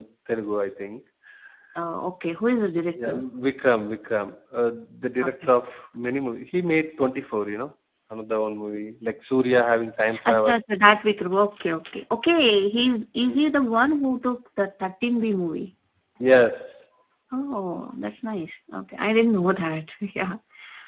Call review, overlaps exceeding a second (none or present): none